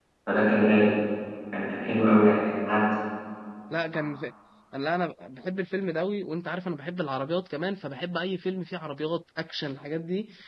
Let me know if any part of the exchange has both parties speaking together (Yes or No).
No